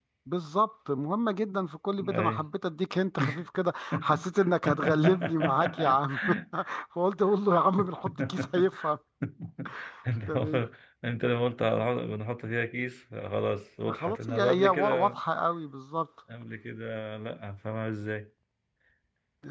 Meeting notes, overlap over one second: present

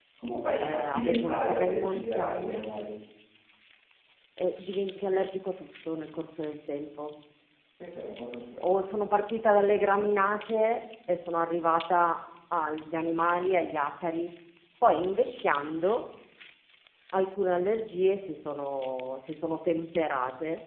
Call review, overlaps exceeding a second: present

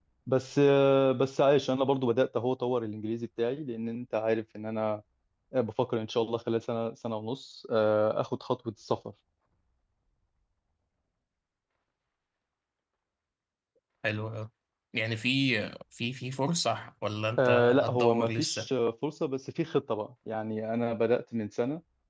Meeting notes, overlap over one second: present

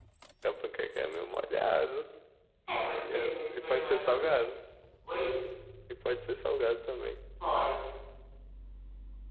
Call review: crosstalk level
present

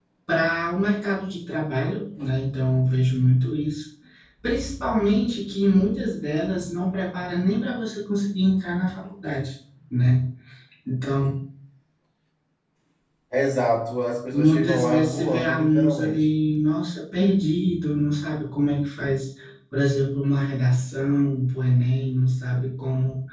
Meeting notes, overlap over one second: present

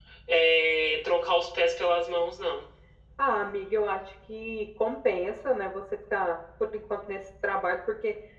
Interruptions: none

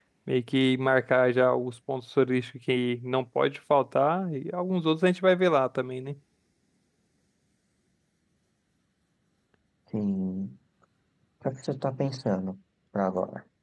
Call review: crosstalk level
none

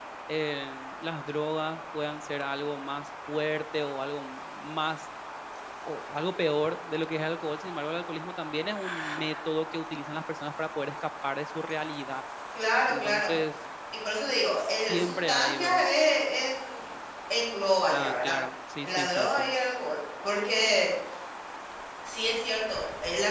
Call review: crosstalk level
present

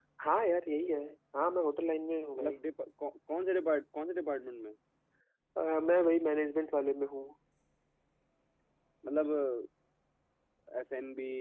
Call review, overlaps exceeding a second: none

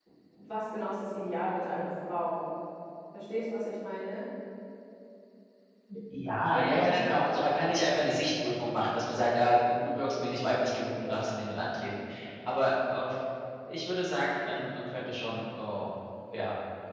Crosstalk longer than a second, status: none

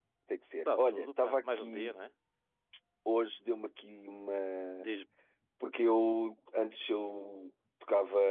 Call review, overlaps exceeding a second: present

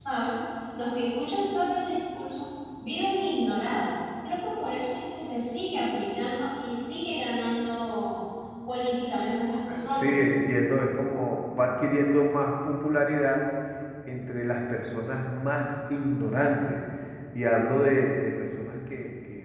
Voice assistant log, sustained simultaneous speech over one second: none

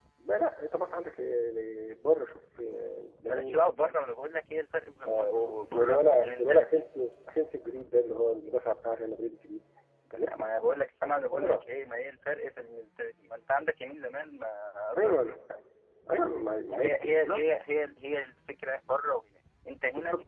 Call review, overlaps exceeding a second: present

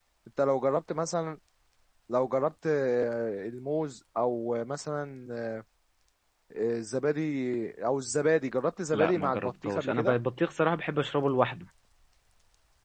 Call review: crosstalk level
present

